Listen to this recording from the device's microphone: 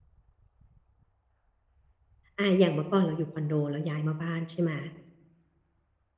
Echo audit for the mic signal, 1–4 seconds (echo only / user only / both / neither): user only